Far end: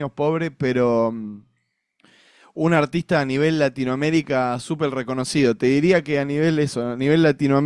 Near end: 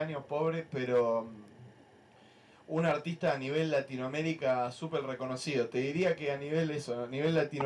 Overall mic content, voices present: echo only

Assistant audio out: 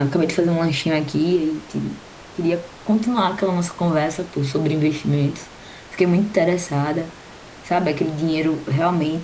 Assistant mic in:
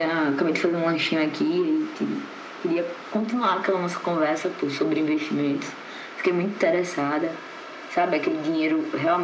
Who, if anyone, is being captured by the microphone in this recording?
echo only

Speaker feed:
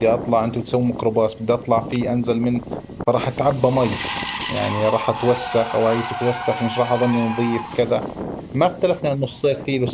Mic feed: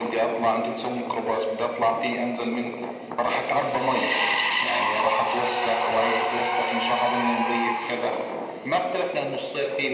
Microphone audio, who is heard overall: echo only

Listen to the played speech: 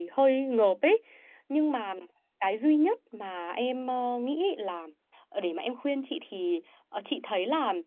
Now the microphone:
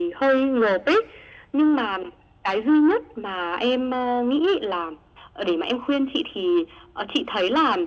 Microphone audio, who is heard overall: echo only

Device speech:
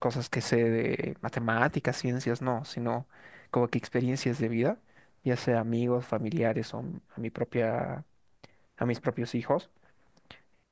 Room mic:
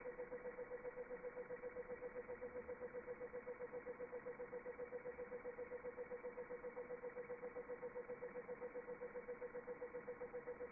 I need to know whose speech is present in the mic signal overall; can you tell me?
neither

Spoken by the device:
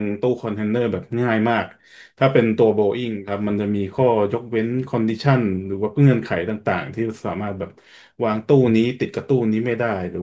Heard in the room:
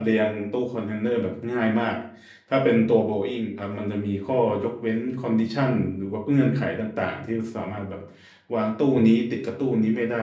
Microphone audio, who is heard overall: echo only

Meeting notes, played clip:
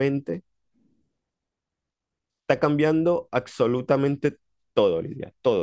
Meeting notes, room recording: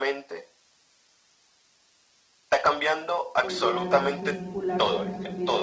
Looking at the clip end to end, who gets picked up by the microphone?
both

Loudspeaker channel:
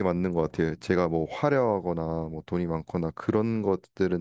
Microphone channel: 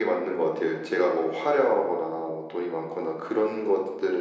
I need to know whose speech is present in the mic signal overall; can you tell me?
echo only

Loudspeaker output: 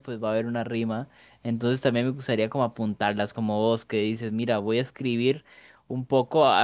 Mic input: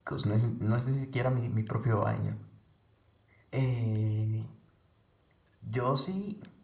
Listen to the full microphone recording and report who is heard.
user only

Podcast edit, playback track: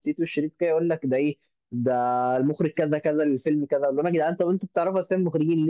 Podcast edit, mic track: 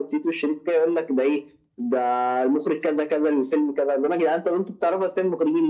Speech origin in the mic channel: echo only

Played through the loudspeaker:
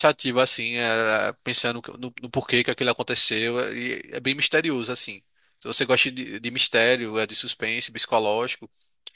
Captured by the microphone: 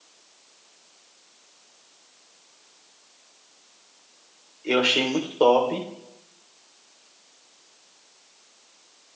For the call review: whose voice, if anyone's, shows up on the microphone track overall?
user only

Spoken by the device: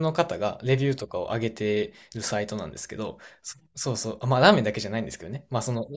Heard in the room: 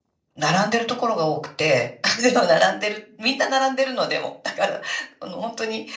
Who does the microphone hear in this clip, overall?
user only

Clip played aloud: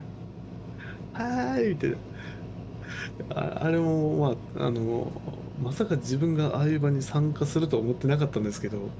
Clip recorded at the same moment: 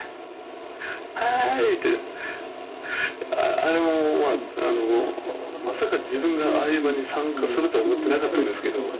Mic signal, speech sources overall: both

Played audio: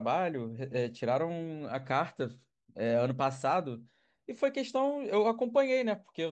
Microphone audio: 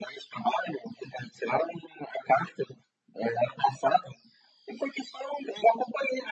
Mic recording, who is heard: echo only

